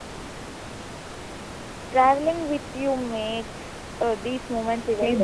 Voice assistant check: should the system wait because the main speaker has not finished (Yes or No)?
No